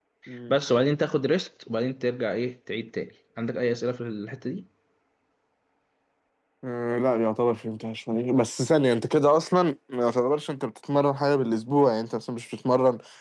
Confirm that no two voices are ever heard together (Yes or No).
Yes